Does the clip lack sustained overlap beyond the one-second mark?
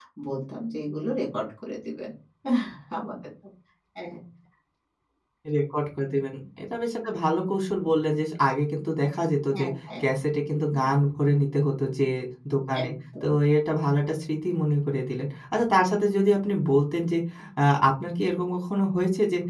Yes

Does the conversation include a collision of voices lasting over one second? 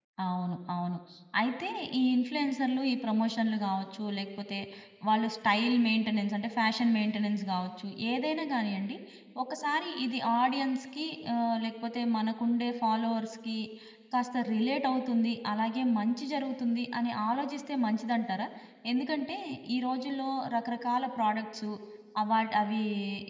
No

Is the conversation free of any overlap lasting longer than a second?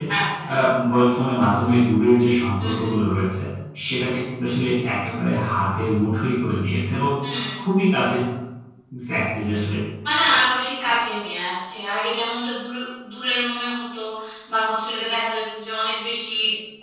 Yes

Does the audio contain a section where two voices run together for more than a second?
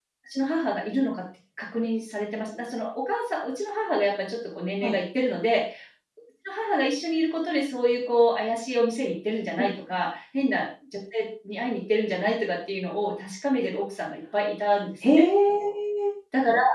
No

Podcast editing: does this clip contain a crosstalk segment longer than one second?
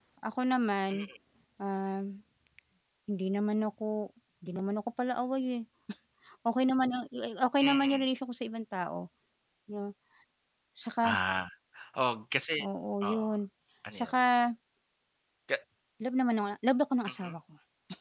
No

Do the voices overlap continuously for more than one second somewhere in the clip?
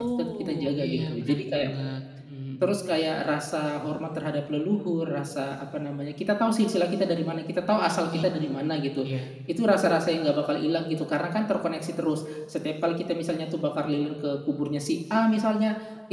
Yes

